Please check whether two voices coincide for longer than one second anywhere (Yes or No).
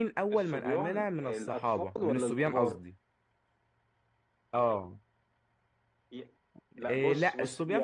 Yes